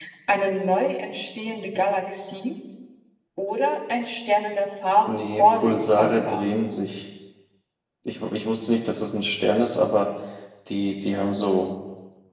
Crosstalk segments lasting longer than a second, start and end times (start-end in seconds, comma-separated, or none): 5.1-6.4